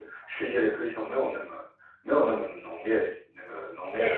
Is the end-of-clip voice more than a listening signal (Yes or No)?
Yes